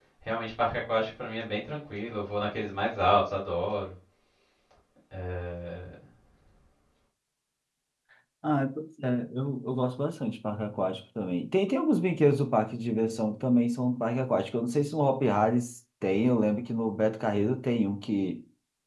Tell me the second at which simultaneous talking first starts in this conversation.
none

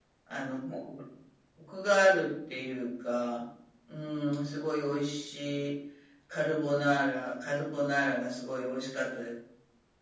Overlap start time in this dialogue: none

